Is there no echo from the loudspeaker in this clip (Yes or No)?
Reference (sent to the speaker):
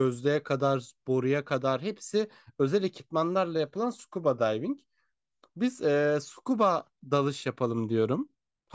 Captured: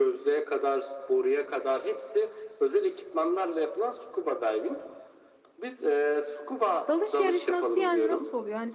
No